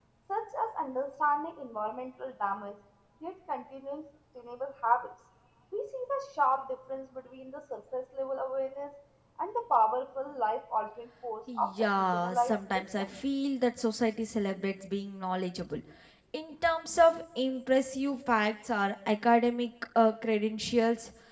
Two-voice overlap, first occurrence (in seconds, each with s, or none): 11.5 s